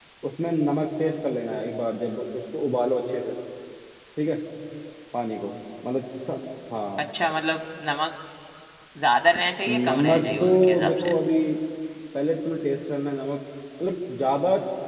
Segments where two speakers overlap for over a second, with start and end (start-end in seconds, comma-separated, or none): 9.7-11.1